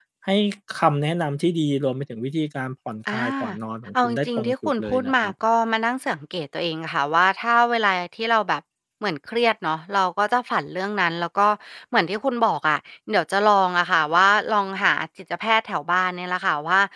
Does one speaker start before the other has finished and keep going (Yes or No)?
Yes